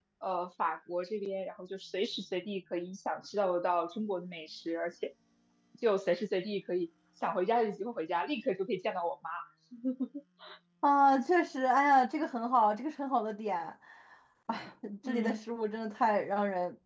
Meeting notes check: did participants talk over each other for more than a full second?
No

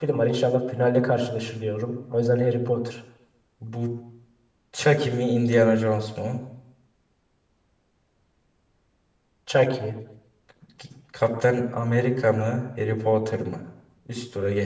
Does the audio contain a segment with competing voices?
No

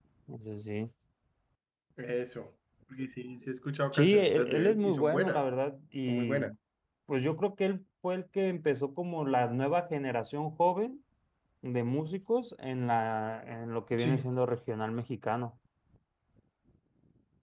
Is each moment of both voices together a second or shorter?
No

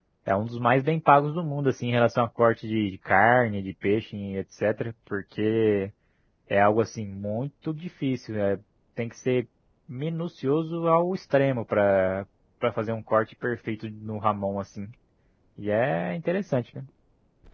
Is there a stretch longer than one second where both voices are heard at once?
No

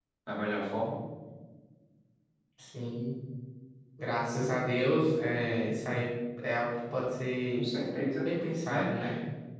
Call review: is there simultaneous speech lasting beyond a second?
No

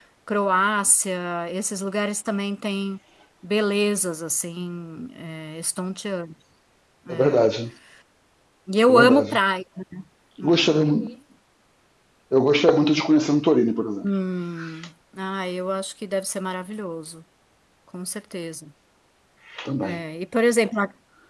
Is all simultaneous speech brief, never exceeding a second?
Yes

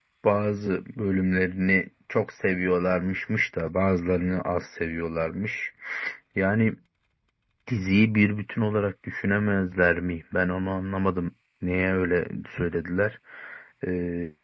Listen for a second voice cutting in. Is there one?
No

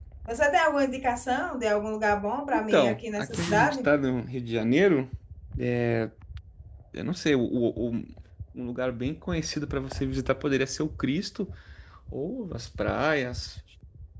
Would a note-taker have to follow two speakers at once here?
Yes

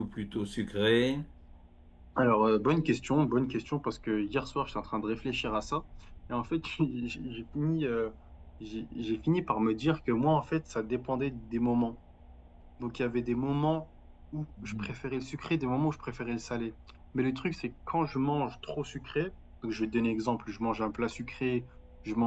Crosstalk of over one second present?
No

